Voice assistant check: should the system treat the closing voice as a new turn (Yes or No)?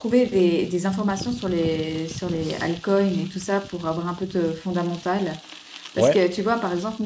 No